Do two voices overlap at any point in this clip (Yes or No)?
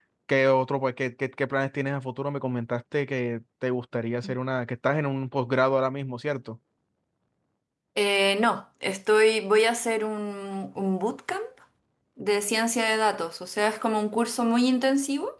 No